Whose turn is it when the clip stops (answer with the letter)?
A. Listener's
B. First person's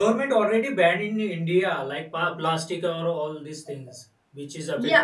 A